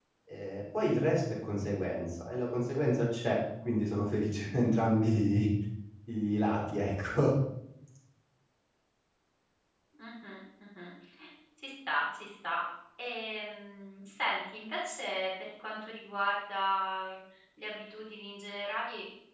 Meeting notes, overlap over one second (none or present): none